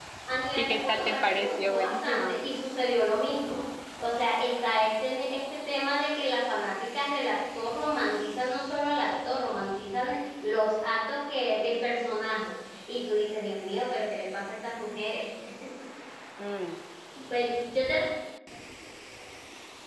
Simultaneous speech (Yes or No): Yes